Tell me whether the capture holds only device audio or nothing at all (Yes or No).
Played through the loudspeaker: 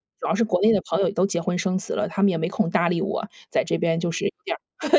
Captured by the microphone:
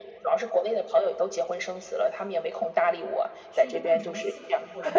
No